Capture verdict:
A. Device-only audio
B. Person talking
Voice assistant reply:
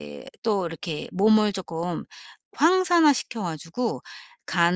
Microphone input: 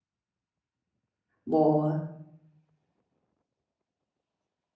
B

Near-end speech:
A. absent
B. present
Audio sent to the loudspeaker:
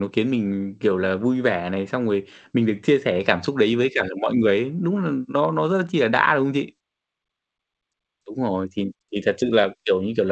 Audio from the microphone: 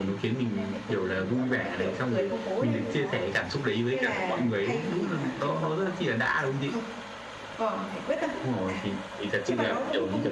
B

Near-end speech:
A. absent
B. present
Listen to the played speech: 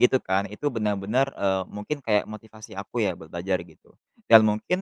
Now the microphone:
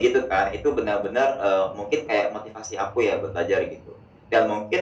A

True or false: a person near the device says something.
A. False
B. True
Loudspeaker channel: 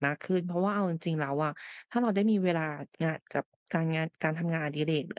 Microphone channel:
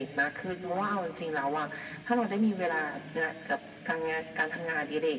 A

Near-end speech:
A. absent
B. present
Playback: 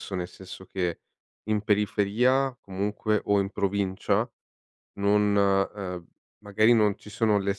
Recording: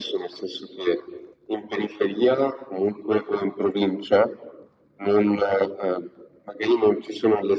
A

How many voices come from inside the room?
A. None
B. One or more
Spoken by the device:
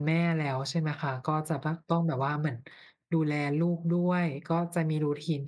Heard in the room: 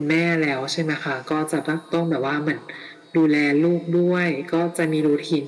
A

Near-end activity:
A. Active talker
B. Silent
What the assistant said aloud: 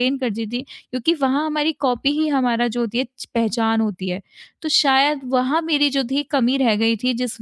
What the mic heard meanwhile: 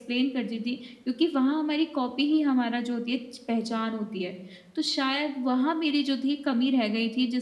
B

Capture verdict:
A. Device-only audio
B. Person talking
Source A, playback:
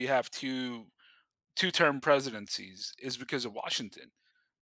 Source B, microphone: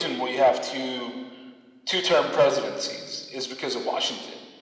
A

